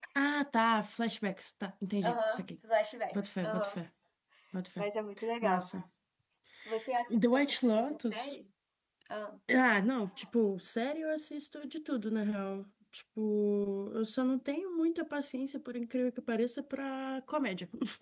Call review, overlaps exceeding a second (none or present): present